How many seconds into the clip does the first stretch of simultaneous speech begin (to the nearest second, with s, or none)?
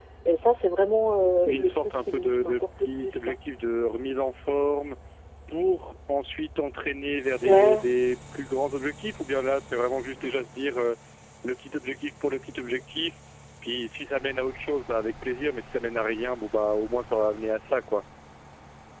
1 s